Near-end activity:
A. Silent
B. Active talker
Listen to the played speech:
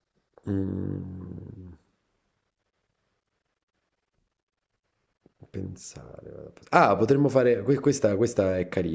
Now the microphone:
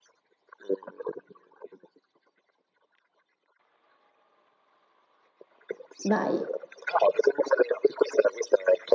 B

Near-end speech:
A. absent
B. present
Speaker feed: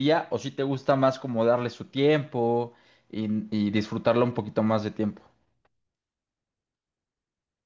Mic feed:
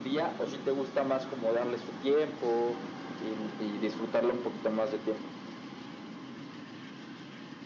A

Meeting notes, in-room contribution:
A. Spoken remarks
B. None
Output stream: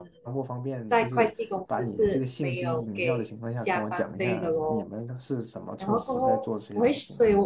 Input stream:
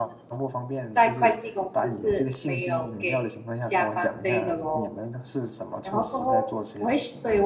B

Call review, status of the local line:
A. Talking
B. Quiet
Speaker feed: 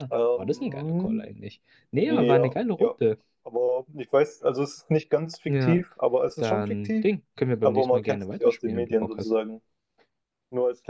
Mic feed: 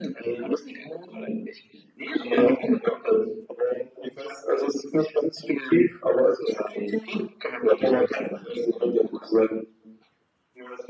B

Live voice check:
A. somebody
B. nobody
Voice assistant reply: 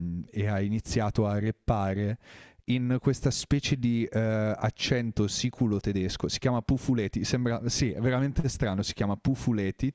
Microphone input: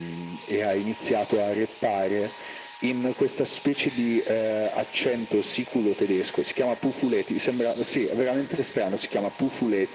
B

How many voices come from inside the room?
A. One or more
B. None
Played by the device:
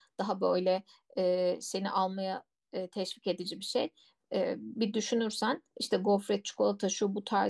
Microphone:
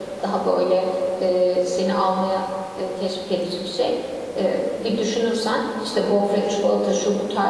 B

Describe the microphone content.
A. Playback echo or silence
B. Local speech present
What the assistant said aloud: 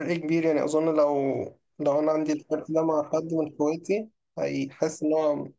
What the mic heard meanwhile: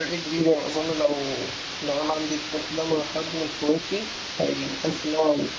A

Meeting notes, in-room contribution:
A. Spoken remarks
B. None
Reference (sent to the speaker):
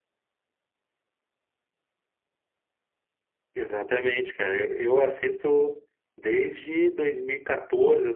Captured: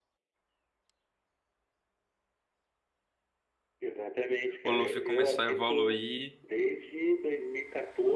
A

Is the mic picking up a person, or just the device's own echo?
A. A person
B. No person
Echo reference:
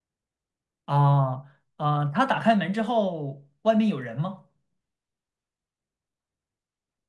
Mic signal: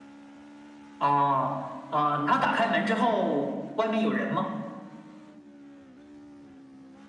B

